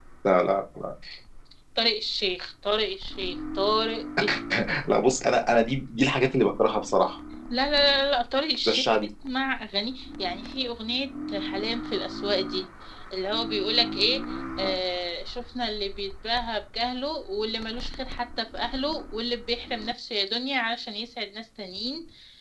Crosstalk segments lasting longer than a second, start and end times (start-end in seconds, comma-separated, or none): none